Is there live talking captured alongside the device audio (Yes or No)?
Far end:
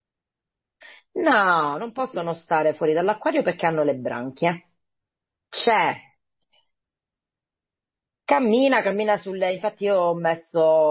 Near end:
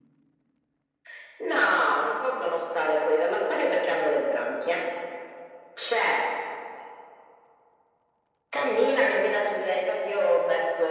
No